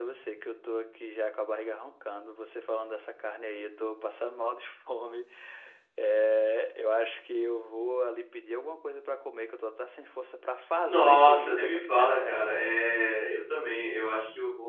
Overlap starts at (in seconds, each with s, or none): 10.8 s